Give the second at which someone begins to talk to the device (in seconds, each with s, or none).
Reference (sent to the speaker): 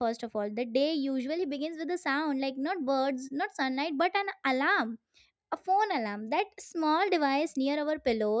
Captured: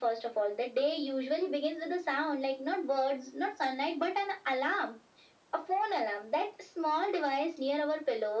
none